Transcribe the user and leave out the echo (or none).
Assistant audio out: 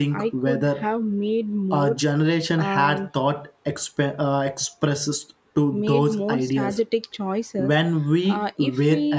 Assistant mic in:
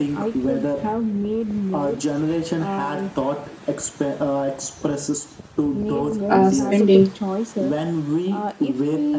uh, spending,